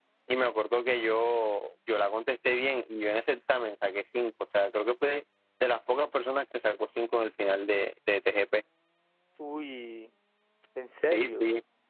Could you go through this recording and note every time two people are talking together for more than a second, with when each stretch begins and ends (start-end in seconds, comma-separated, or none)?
none